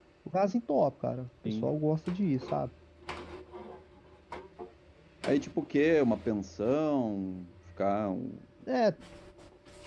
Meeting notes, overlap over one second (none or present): none